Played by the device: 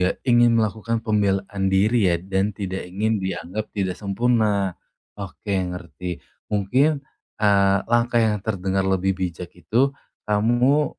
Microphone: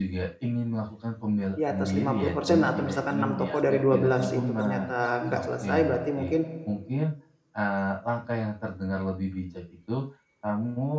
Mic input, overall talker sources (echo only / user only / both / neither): both